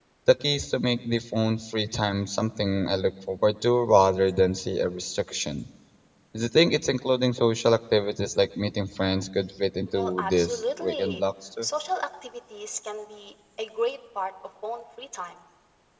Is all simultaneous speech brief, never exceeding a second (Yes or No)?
No